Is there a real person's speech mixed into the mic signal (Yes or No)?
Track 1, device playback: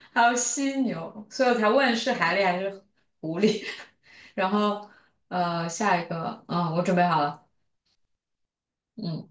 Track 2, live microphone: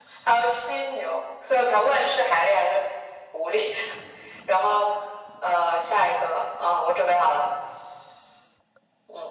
No